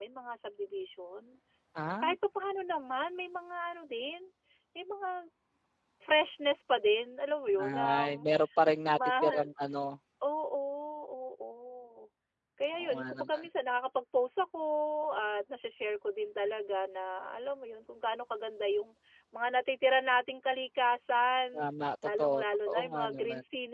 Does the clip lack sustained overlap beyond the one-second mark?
No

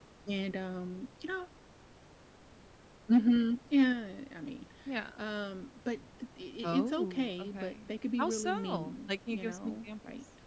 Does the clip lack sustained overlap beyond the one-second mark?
No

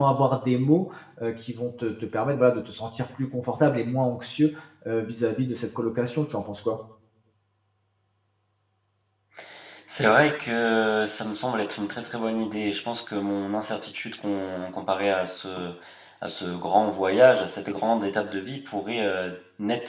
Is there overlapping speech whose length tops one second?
No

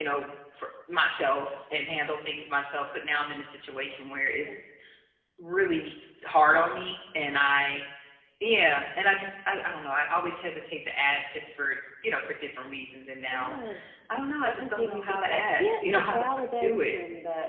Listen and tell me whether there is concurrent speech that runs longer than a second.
Yes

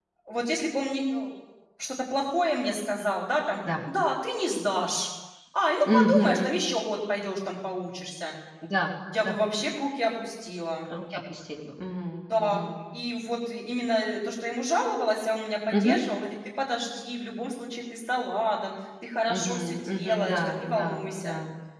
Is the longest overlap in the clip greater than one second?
Yes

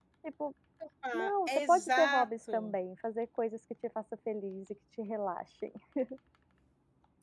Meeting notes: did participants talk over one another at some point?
Yes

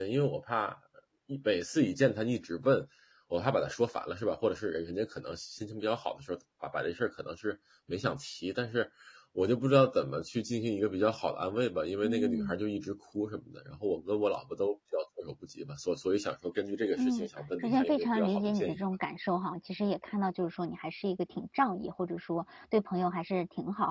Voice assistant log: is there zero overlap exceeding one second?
No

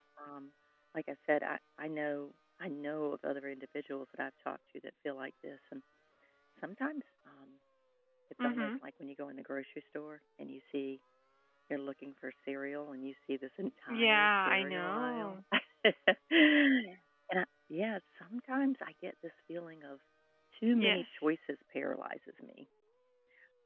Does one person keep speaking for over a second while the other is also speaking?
Yes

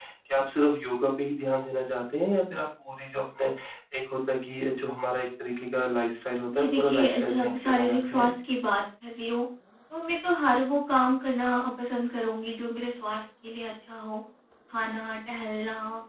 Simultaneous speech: Yes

